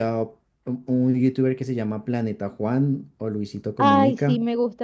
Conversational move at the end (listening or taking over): taking over